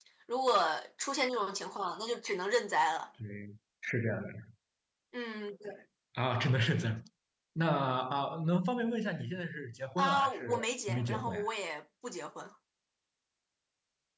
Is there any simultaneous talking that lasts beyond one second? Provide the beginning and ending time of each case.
10.0-11.4

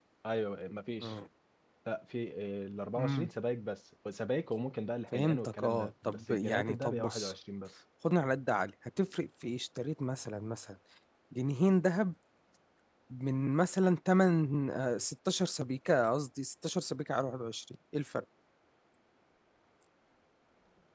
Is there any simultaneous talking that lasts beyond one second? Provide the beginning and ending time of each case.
5.1-7.3

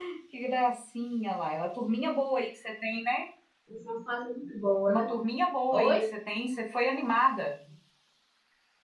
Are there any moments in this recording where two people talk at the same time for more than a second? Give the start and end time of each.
none

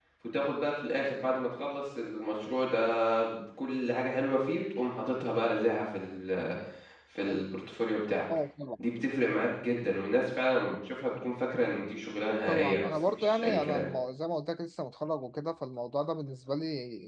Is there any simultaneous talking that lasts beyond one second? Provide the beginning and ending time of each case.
12.5-13.9

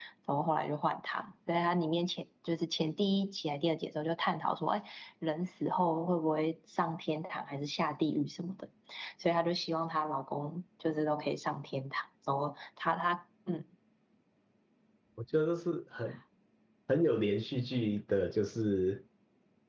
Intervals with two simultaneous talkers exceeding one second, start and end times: none

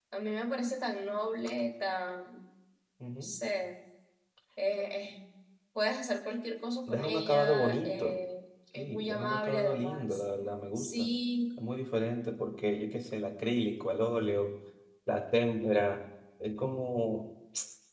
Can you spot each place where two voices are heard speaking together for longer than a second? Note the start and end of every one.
6.9-8.2, 8.8-10.2

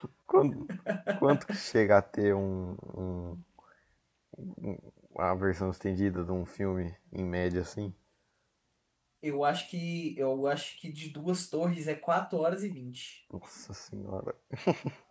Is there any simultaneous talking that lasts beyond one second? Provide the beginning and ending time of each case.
none

